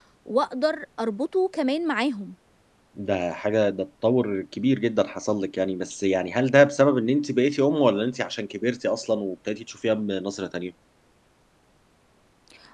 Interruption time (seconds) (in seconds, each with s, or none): none